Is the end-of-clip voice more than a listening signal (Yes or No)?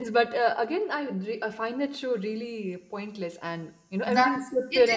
Yes